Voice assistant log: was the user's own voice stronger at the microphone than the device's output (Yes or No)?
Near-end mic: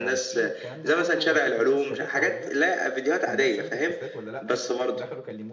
No